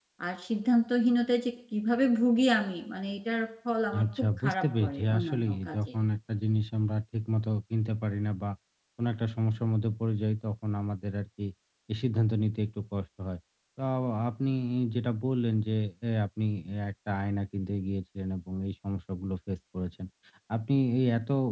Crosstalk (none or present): present